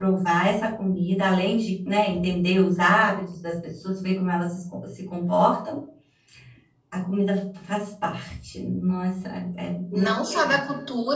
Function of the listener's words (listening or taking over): taking over